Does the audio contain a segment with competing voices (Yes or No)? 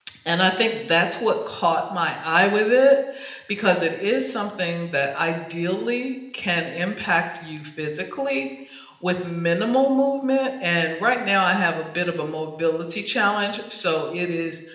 No